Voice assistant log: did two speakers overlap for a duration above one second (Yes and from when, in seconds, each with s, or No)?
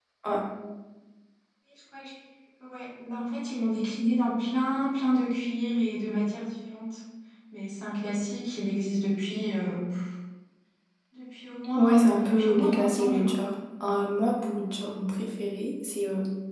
Yes, from 11.8 s